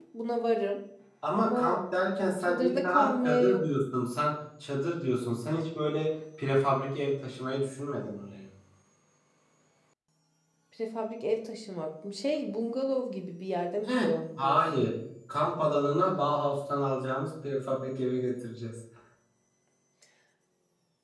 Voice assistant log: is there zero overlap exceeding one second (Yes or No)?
No